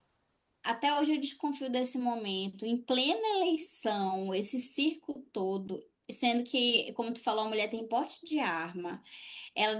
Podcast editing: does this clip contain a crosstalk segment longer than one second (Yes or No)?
No